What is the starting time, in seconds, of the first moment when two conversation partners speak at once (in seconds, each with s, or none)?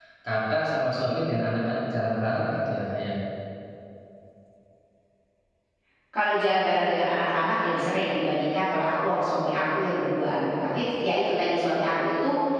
none